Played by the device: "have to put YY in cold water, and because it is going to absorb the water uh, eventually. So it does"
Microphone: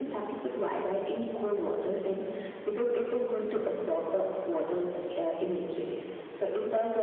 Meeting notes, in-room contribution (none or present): none